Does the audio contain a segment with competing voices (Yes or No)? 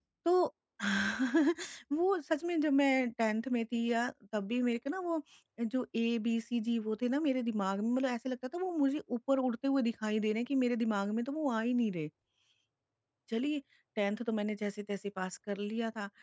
No